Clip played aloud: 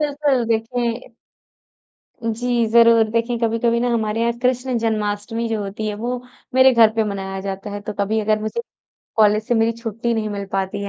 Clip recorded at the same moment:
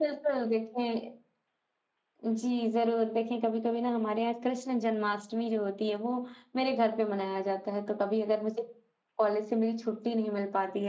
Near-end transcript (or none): none